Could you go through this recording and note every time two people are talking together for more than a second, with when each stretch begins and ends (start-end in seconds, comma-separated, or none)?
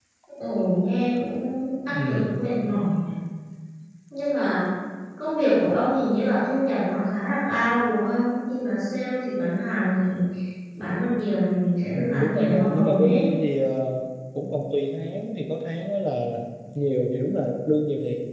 12.0-13.2